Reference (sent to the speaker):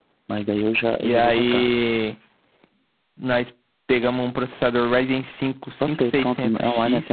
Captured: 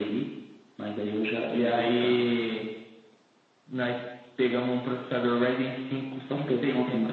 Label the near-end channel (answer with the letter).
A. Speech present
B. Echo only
B